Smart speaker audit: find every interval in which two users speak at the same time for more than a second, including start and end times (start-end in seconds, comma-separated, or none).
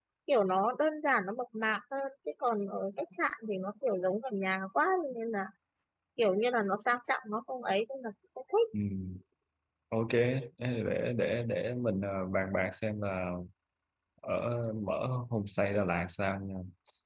none